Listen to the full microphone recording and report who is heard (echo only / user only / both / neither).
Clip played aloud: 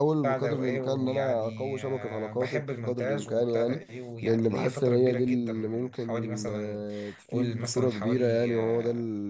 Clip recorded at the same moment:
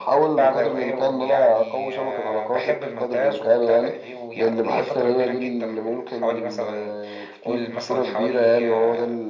echo only